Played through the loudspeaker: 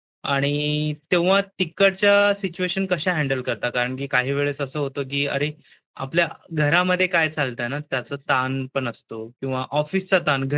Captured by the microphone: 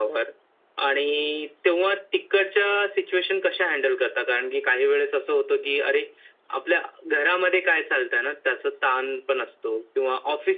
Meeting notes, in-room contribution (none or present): none